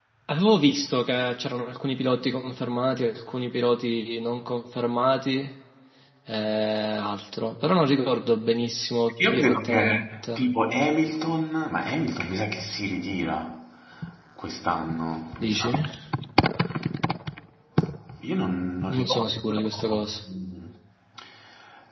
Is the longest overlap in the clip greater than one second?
Yes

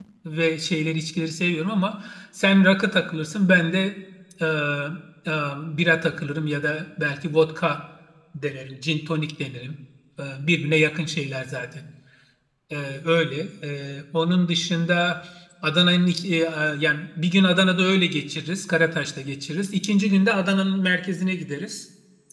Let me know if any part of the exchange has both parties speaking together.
No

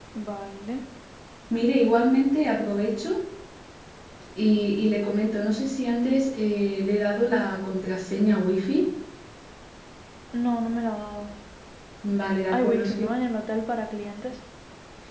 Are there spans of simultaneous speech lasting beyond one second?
No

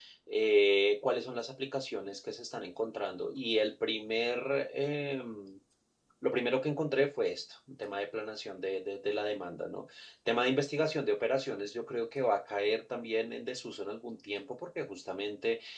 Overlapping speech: No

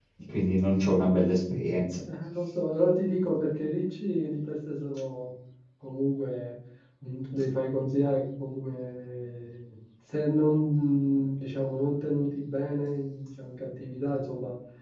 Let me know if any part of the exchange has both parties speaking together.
No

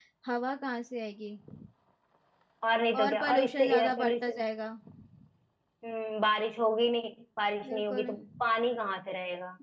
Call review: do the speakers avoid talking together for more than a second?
No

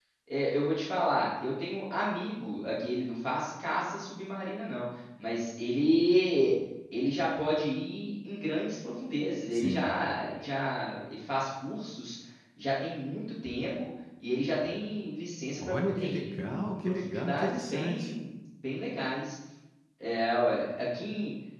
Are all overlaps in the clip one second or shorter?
No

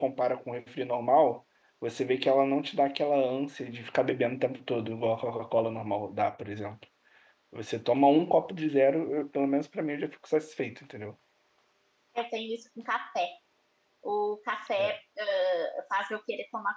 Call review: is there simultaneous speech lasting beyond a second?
No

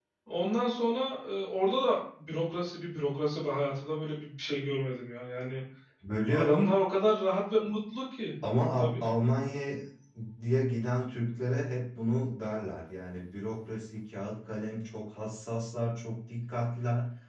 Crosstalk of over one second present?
No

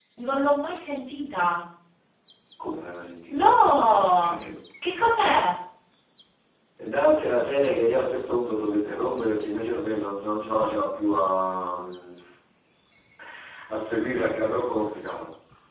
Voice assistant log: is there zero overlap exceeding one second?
Yes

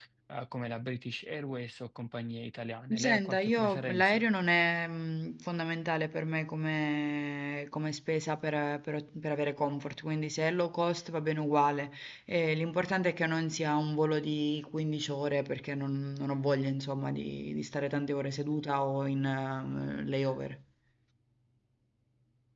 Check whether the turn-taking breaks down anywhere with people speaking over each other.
Yes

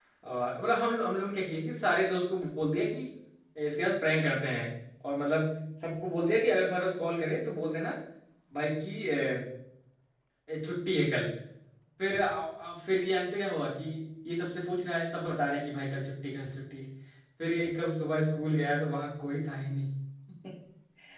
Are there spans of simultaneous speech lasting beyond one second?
No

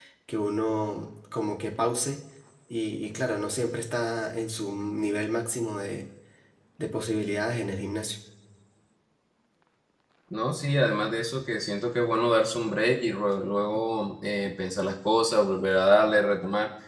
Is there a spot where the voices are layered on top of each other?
No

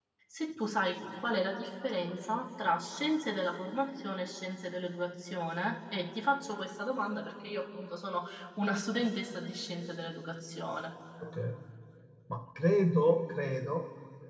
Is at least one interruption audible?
No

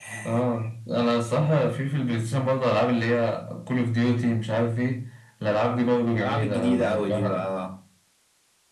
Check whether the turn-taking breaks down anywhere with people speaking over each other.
Yes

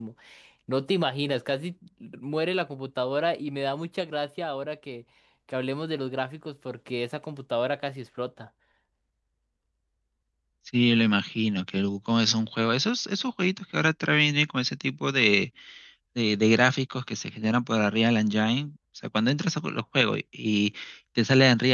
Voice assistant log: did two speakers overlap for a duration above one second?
No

